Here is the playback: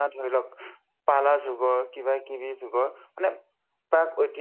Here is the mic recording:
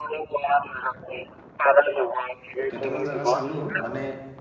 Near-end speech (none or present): present